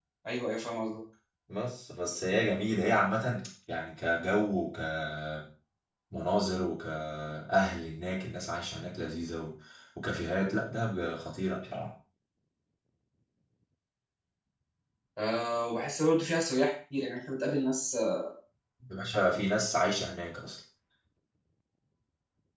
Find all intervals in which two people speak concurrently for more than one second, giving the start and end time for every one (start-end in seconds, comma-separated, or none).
none